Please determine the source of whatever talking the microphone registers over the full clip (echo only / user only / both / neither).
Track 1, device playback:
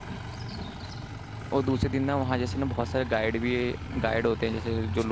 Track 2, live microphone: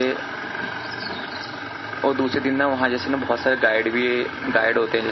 echo only